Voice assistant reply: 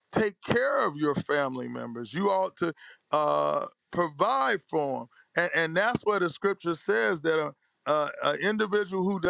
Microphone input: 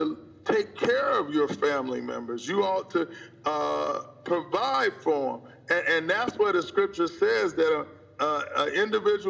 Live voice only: none

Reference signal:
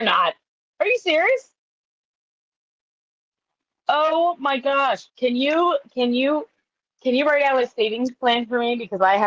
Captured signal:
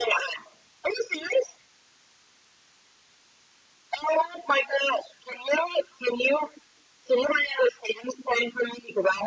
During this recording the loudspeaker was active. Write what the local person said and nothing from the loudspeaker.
none

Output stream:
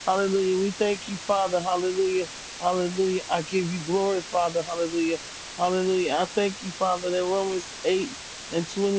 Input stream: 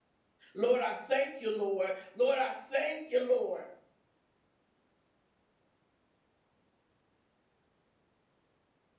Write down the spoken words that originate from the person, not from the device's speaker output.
Lord, I thank you, Lord. Lord, I thank you, Lord.

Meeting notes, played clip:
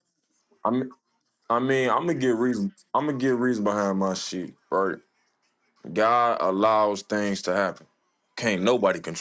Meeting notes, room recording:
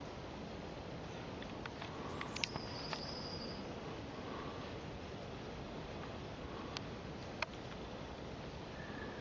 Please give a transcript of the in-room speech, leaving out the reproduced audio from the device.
none

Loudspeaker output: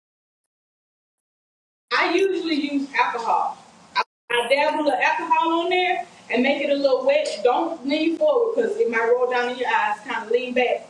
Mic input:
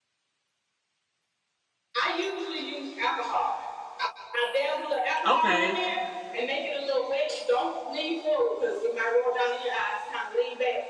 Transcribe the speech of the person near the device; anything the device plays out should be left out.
okay.

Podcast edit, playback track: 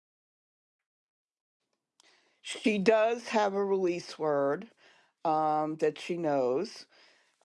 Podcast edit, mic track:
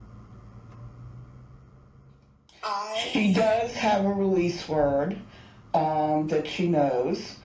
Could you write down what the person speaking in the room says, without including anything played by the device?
I

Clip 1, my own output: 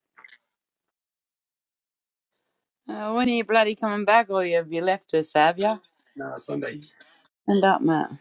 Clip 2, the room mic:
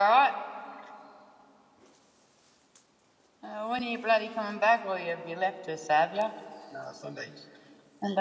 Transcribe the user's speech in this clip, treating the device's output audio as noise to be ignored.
none

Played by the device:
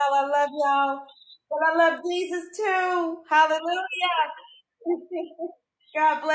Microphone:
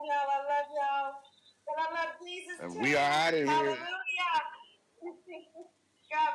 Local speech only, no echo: And we are out of here.

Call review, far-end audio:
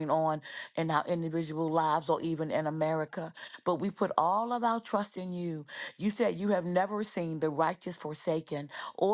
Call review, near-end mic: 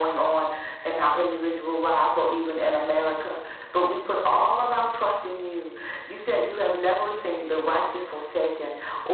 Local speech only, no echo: none

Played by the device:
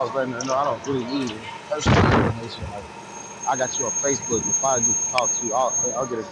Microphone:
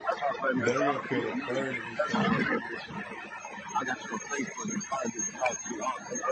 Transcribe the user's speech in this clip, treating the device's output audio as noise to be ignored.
They're gonna feel the burn if you show like

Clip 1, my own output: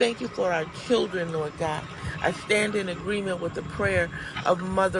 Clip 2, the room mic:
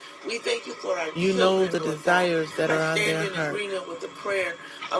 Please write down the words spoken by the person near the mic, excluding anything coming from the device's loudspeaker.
You know the desires that are on their heart.

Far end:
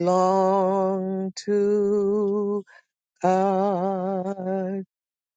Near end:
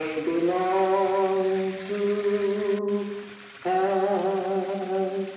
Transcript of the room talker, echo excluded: none

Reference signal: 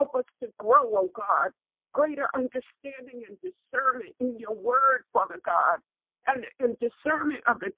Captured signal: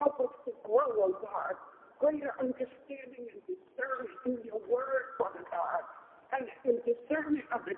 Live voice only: none

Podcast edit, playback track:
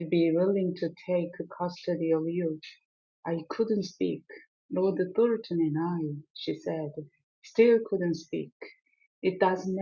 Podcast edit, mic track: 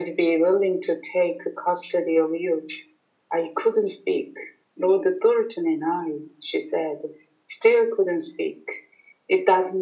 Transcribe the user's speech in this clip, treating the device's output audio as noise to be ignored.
none

